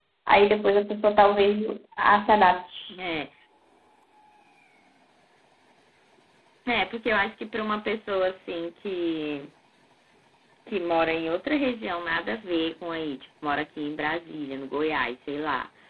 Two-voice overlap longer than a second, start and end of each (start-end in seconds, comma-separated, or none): none